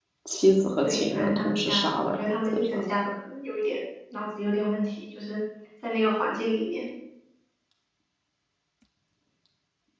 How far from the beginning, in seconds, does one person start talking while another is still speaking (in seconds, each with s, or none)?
0.8 s